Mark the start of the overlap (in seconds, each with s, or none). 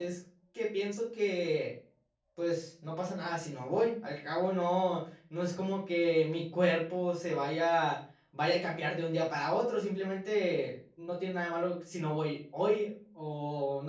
none